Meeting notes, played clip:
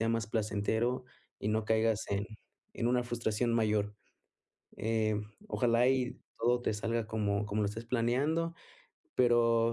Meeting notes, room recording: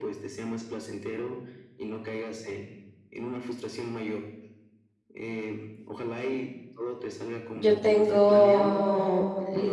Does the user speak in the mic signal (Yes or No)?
Yes